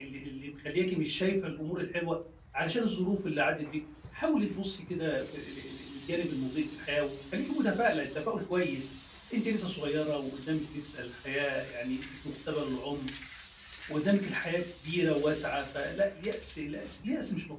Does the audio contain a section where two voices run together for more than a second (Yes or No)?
No